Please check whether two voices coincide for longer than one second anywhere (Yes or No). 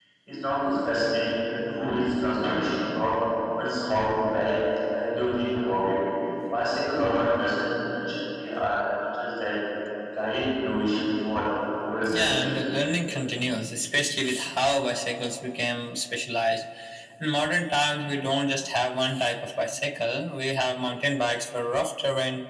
No